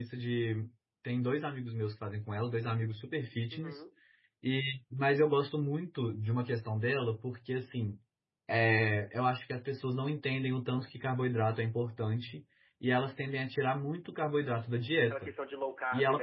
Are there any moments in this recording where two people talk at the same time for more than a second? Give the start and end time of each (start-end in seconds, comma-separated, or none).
none